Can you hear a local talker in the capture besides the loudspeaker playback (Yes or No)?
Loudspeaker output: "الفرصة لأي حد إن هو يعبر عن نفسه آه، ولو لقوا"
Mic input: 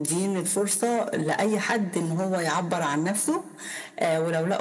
No